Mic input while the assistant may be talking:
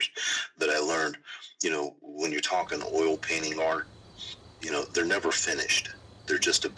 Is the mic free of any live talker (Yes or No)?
Yes